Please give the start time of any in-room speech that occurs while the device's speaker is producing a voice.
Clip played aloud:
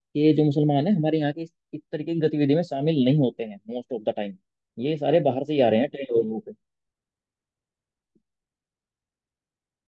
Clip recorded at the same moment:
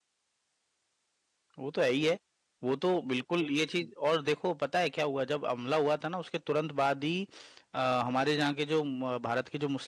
1.6 s

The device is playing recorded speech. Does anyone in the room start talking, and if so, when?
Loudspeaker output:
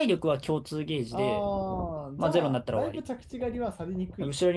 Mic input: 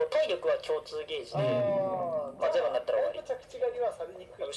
1.3 s

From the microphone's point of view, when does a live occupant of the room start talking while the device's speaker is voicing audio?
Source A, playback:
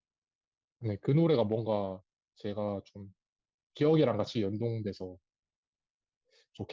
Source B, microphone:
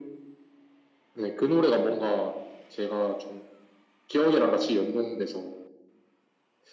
none

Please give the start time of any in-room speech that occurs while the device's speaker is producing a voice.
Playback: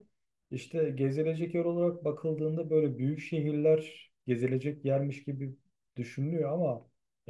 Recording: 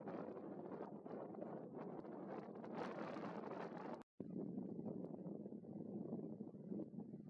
none

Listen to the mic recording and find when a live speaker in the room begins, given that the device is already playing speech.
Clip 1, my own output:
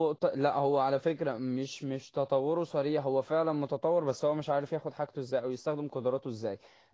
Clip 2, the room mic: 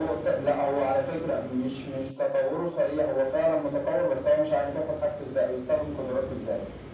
none

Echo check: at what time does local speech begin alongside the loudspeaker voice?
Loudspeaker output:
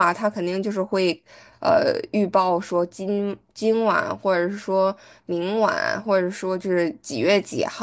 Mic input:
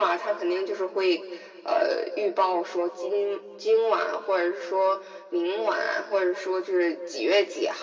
none

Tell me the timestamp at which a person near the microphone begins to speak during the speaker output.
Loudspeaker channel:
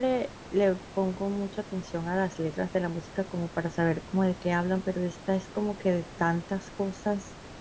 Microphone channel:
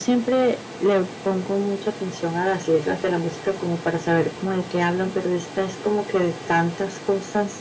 none

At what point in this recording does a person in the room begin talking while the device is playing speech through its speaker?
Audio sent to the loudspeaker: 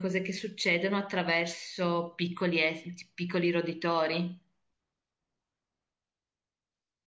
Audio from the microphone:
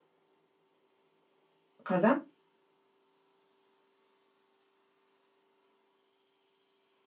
1.8 s

